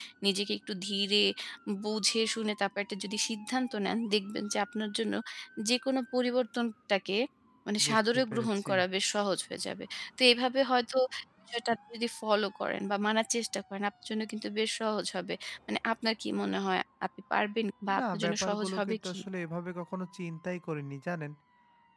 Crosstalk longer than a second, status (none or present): present